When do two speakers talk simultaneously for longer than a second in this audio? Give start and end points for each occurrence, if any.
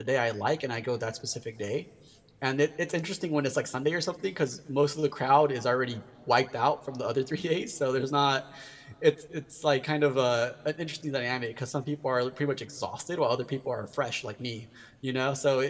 none

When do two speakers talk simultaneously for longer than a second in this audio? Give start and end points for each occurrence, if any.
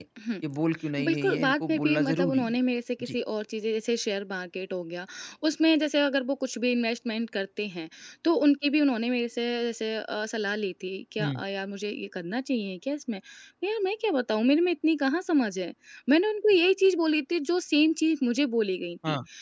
1.0-2.6

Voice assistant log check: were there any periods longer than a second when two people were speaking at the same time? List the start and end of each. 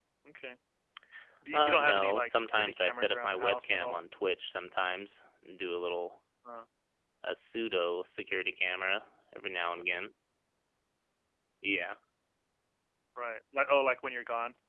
1.5-4.0

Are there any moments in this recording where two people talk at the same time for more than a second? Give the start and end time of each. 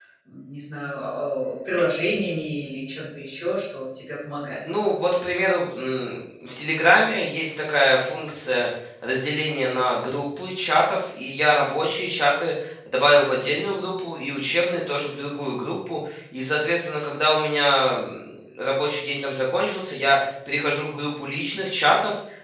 none

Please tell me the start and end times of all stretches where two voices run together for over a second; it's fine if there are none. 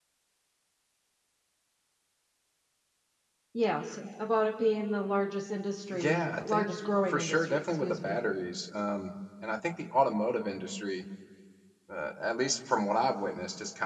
5.9-8.2

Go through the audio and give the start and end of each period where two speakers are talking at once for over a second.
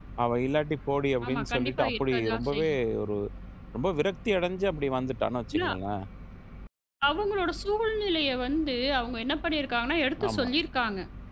1.3-2.8

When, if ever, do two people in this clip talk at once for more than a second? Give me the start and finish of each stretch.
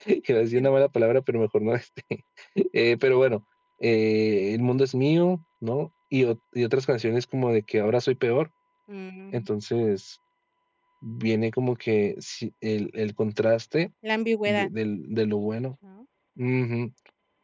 none

